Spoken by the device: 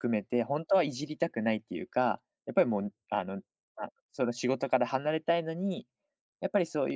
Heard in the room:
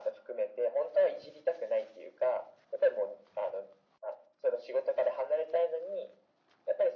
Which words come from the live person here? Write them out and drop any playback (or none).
none